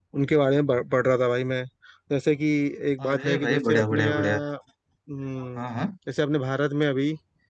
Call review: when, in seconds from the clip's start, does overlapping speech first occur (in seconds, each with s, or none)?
3.1 s